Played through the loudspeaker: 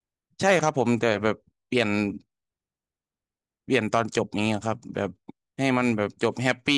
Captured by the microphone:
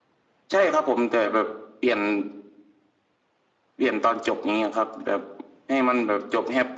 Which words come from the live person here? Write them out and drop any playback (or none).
none